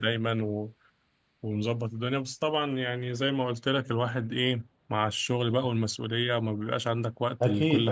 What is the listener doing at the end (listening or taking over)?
taking over